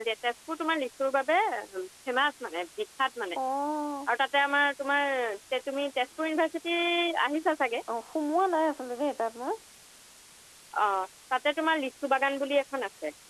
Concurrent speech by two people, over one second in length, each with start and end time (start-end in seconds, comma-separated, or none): none